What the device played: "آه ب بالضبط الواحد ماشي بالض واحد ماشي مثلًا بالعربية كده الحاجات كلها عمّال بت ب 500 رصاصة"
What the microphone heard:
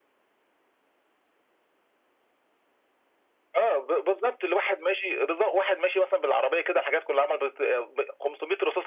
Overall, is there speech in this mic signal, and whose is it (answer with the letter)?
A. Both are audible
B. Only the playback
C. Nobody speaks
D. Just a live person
B